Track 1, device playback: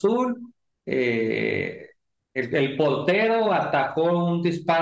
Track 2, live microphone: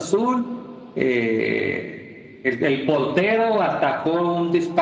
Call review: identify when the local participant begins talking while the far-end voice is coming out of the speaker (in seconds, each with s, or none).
none